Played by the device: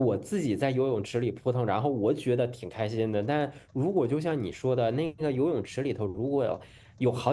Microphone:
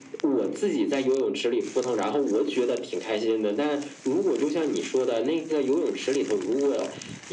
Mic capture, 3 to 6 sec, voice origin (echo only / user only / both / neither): echo only